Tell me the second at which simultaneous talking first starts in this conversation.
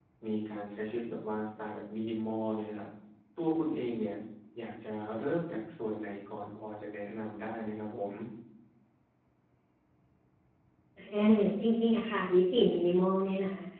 none

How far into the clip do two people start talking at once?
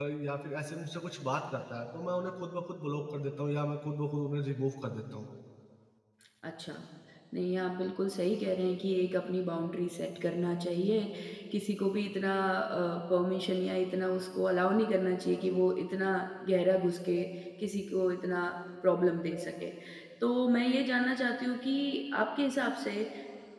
none

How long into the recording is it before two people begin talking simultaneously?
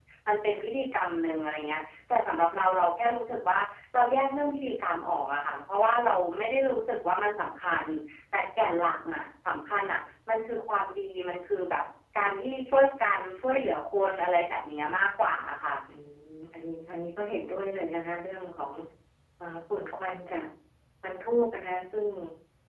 none

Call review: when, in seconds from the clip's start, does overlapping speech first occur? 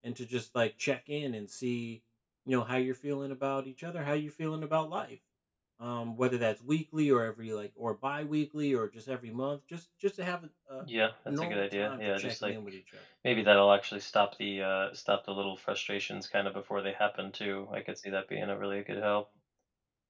11 s

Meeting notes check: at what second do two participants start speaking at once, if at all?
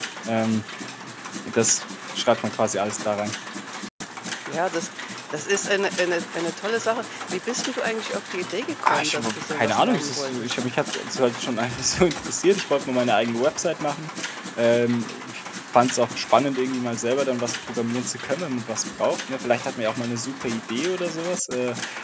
9 s

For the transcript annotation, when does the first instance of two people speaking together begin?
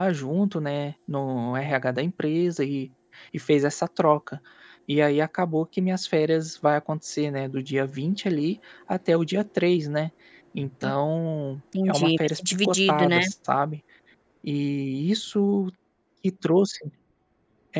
12 s

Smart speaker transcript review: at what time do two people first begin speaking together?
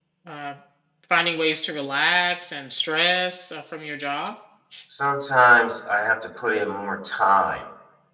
none

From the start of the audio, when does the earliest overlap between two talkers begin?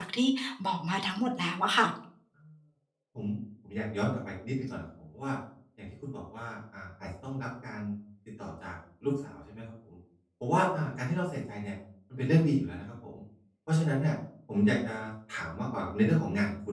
none

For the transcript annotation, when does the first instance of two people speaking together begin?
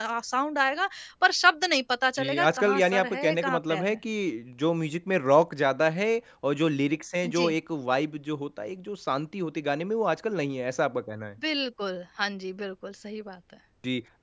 2 s

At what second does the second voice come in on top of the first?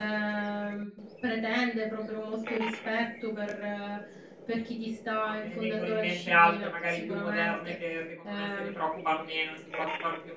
5 s

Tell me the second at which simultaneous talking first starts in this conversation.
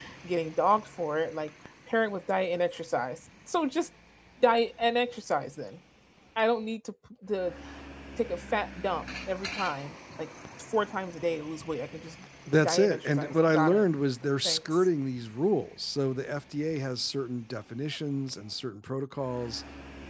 13 s

